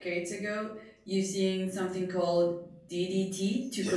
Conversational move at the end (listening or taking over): taking over